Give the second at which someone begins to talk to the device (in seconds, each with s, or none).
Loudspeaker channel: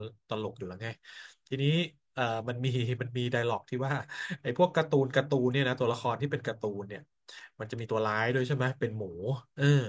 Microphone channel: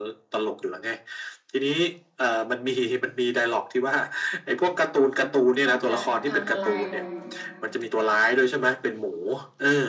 5.6 s